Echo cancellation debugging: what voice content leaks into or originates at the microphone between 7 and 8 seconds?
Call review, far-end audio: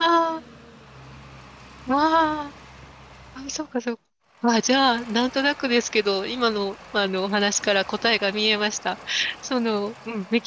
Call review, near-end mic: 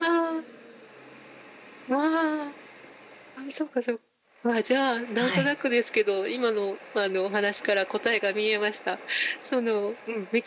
echo only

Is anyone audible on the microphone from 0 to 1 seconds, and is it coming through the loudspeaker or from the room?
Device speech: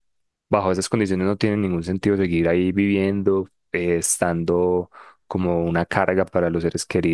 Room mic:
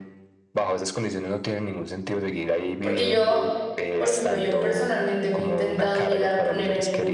echo only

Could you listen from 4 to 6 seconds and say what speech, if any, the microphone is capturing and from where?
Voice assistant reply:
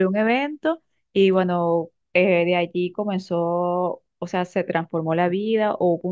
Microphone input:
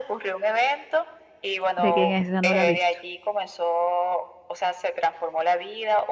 echo only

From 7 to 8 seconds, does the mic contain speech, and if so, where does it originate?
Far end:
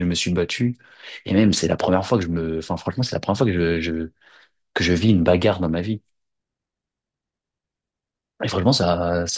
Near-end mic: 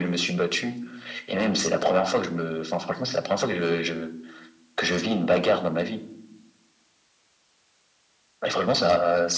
neither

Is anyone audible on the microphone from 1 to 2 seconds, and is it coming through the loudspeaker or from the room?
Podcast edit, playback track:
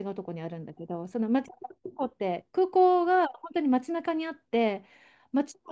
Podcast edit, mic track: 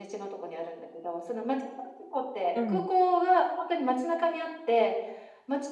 echo only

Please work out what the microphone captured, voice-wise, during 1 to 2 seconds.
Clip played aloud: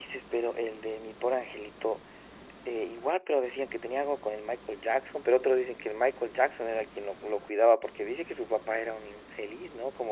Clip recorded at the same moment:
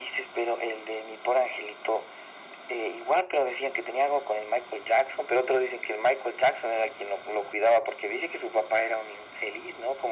echo only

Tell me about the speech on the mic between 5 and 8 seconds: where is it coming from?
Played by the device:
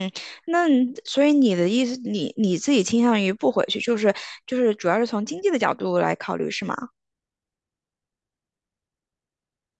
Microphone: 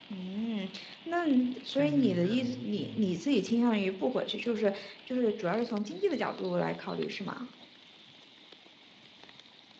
echo only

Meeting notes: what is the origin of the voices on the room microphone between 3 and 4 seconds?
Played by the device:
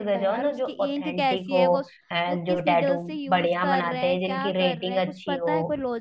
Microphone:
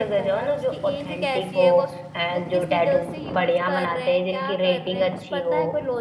echo only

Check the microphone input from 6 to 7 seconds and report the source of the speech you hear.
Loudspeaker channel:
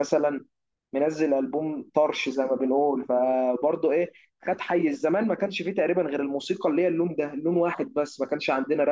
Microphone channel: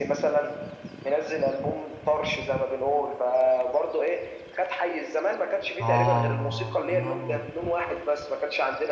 both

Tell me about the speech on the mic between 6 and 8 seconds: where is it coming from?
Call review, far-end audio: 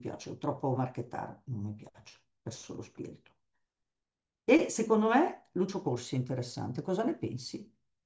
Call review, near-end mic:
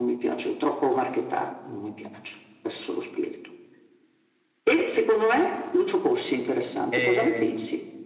both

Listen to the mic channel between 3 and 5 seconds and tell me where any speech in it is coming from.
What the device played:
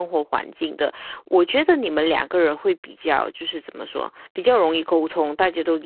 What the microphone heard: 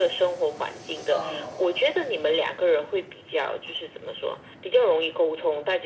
echo only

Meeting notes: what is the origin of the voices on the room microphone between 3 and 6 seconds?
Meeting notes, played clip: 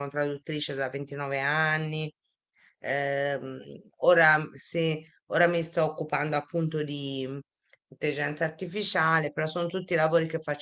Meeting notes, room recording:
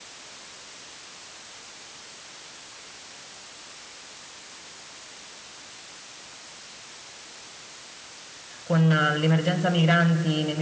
neither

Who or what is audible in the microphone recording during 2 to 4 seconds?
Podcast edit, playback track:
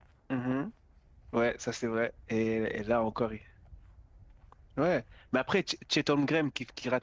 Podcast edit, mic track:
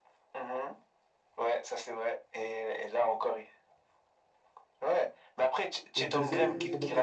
echo only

